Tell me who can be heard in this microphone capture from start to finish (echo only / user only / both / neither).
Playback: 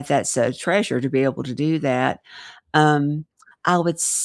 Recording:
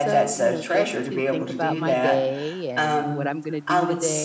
both